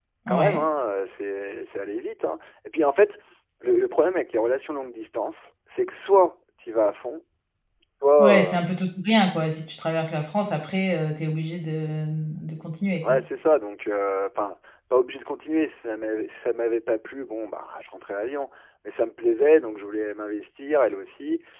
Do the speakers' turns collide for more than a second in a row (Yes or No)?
No